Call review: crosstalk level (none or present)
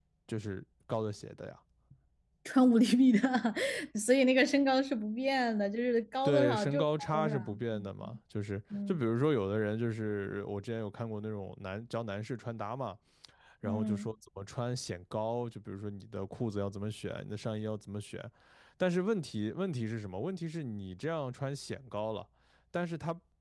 present